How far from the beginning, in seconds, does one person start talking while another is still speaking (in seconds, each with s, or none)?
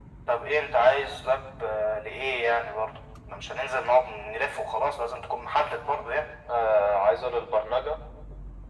none